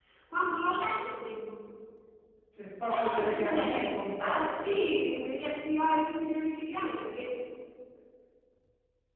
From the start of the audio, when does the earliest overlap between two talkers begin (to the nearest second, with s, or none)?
3 s